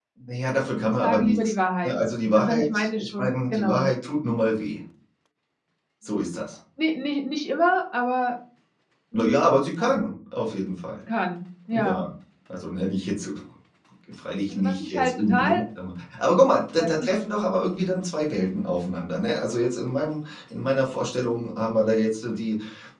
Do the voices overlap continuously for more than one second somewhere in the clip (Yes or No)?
Yes